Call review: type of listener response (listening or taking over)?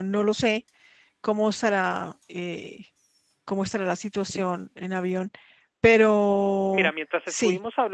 taking over